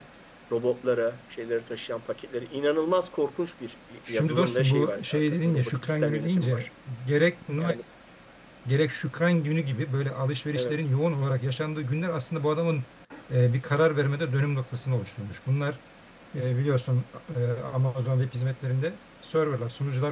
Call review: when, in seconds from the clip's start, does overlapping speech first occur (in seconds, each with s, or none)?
4.1 s